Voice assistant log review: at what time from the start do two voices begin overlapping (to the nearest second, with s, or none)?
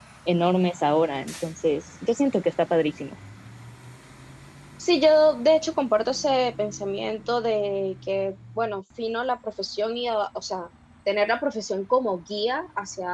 none